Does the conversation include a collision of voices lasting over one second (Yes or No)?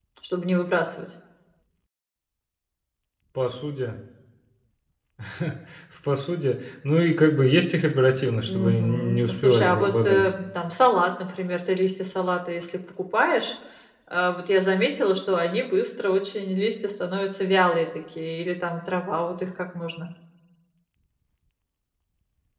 Yes